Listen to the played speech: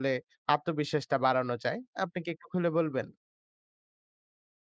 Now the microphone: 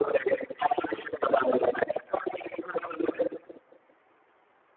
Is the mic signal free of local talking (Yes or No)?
Yes